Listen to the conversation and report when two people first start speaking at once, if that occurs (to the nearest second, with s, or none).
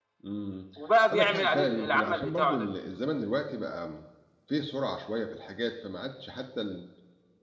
1 s